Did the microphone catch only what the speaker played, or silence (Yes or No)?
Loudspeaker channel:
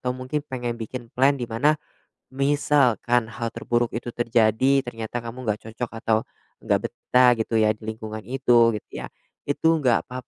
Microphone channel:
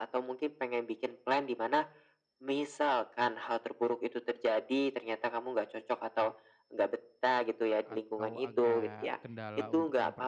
No